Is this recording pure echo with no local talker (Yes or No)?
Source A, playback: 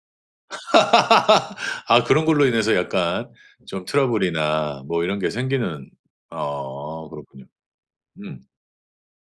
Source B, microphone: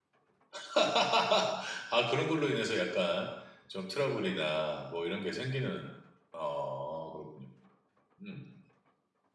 Yes